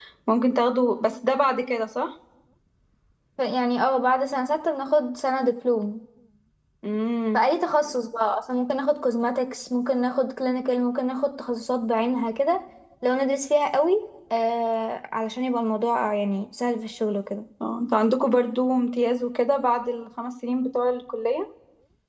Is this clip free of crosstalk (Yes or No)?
Yes